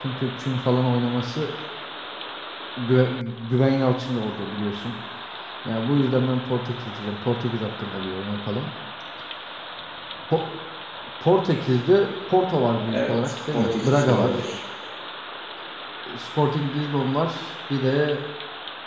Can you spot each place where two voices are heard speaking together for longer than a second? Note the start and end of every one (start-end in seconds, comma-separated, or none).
12.8-14.4